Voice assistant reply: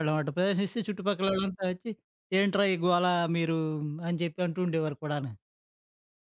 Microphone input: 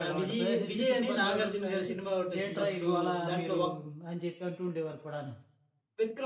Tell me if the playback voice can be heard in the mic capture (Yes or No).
Yes